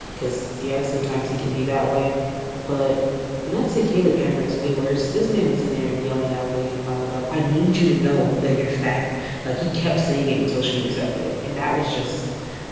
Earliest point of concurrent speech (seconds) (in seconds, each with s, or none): none